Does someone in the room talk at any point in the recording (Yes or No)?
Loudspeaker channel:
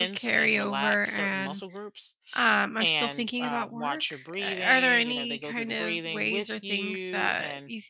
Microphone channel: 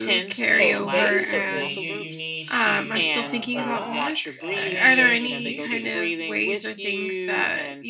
Yes